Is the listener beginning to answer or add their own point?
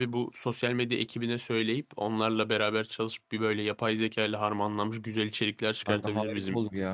Yes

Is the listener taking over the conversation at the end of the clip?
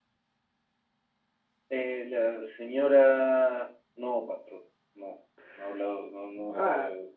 Yes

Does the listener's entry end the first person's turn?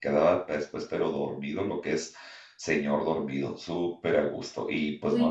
Yes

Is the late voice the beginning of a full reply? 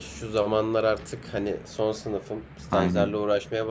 No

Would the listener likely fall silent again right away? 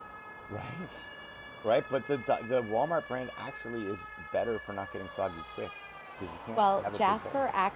No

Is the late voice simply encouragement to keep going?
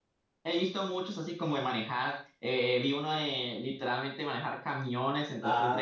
Yes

